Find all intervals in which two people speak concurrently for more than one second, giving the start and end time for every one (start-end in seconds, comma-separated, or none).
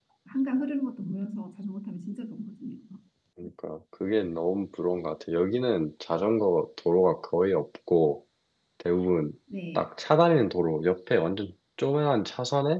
none